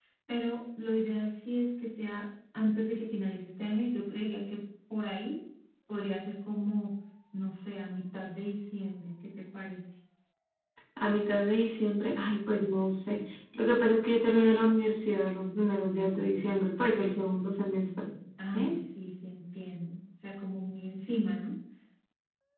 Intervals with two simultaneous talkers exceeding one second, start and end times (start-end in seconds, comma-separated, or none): none